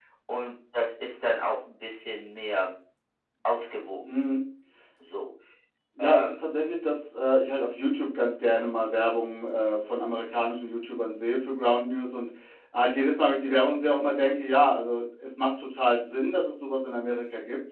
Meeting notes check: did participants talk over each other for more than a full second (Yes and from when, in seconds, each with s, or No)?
No